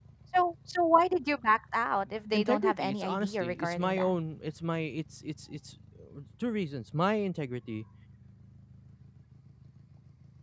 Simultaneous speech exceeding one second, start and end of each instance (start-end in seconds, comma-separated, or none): 2.3-4.1